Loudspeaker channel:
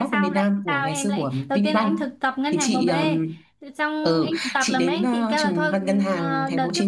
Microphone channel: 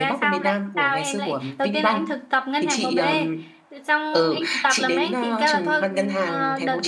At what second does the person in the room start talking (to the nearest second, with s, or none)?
none